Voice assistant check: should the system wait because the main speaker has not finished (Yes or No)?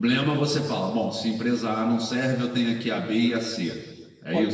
No